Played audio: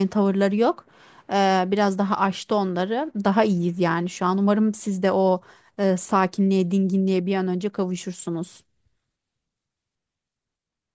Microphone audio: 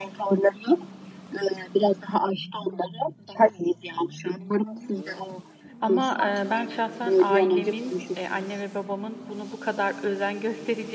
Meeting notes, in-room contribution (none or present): present